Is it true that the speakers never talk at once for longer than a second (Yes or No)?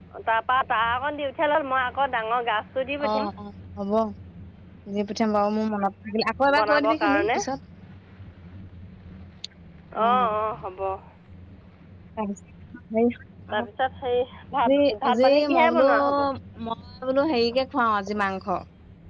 No